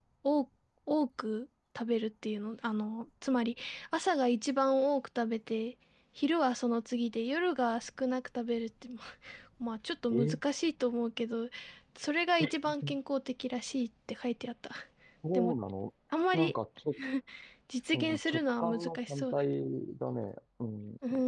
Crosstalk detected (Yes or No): Yes